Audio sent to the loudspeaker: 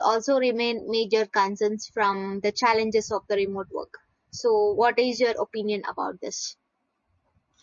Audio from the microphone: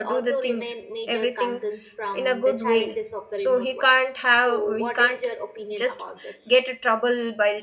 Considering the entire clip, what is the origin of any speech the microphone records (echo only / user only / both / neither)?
both